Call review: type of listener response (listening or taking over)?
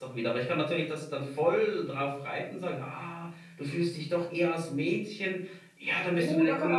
taking over